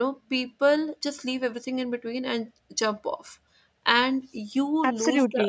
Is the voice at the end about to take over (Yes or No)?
No